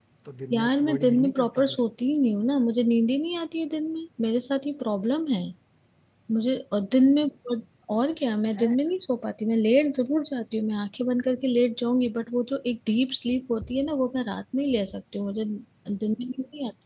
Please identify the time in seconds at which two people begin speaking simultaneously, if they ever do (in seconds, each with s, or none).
0.5 s